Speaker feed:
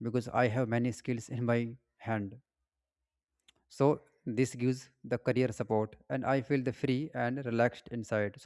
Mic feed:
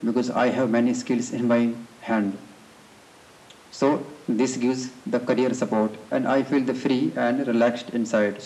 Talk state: echo only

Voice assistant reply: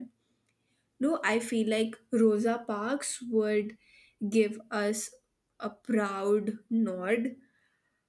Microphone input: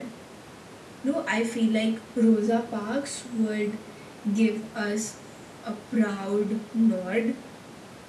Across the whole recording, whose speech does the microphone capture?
echo only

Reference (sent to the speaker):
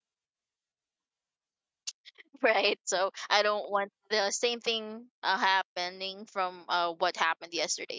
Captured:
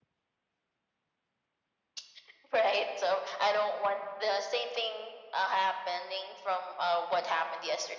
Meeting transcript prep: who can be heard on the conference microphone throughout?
echo only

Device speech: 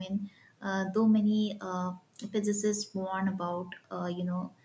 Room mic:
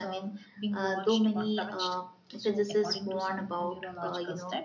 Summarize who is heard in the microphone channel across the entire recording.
both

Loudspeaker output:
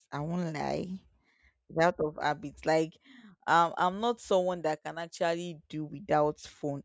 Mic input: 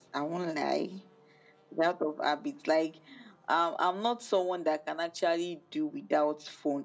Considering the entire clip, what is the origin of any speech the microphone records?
echo only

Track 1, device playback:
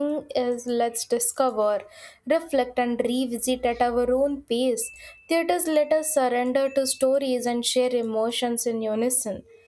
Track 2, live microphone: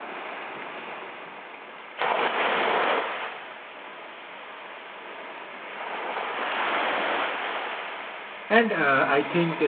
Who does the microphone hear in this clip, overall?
user only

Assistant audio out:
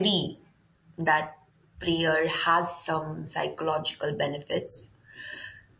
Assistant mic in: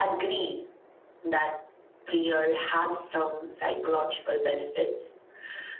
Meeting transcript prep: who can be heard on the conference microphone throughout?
echo only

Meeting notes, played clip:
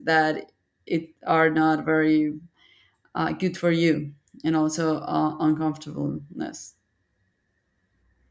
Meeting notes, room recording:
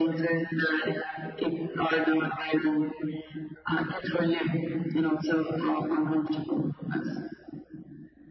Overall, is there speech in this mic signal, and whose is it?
echo only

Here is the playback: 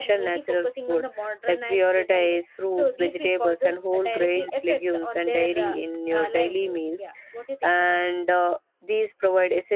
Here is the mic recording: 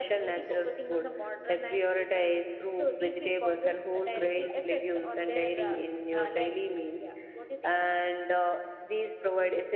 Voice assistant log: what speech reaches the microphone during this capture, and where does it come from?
echo only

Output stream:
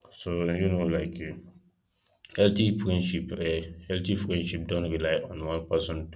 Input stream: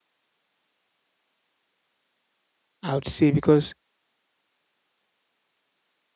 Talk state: user only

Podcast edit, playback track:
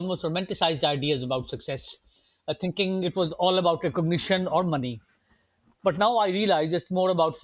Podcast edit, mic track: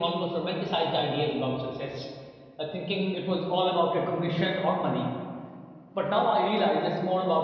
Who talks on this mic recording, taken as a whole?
echo only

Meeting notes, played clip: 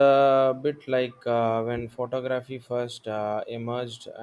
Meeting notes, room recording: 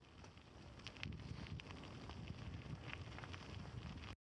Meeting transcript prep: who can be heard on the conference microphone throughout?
neither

